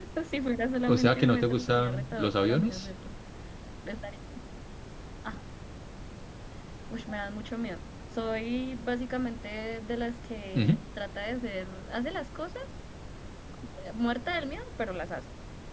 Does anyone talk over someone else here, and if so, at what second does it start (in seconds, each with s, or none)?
0.9 s